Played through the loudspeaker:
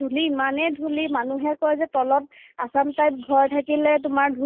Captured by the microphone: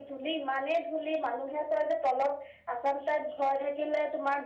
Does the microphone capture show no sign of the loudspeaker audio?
No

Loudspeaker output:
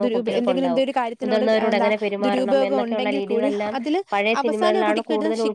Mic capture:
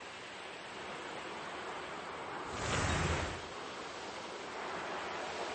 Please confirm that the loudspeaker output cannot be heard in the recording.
Yes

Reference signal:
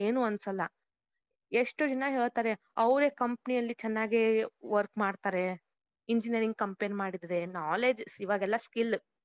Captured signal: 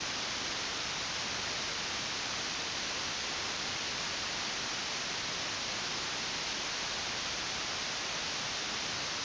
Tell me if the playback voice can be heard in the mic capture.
No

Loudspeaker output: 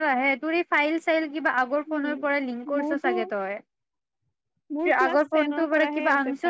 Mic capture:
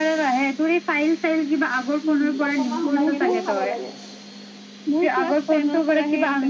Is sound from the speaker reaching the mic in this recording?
Yes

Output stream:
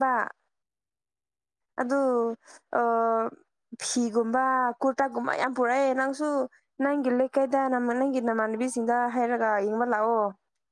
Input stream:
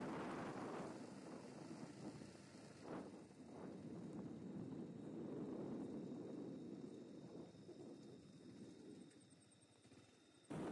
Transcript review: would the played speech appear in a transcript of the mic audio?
No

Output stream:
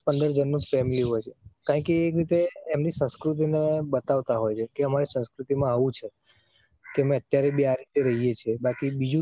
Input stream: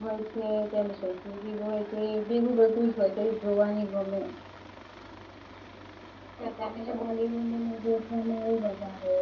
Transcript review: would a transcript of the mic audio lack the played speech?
Yes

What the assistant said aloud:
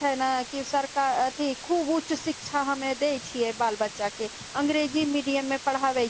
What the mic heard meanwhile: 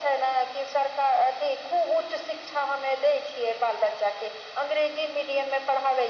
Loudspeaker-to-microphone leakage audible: Yes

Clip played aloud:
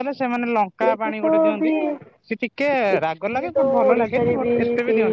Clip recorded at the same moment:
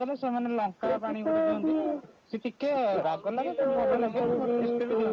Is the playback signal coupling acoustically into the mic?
Yes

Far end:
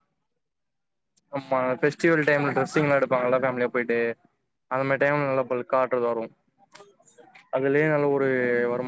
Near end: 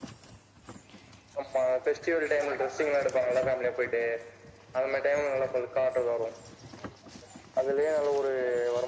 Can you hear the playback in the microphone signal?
Yes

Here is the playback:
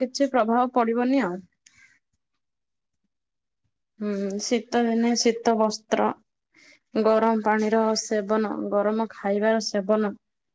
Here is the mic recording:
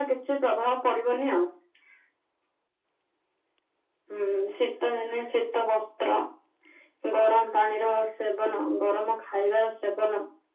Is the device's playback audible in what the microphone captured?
Yes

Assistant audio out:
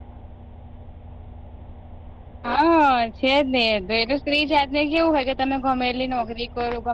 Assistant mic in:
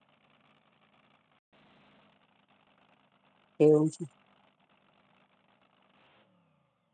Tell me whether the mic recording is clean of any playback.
Yes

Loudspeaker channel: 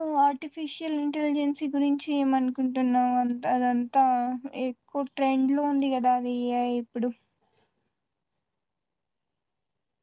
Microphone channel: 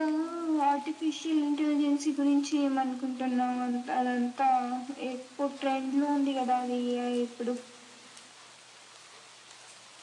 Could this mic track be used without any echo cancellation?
No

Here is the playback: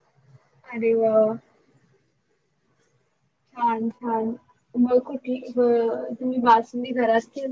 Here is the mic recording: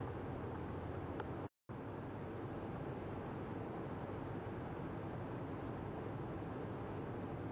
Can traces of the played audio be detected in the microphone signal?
No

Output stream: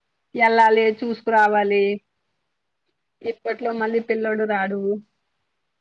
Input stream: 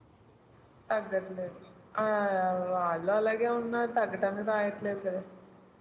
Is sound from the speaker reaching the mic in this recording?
No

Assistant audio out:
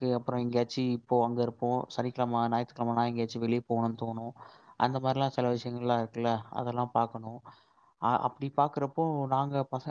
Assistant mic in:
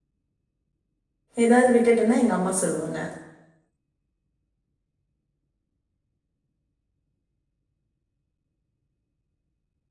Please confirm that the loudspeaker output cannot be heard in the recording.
Yes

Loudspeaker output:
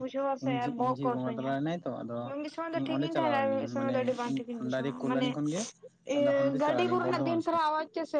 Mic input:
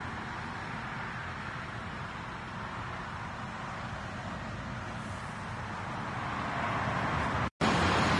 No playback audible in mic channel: Yes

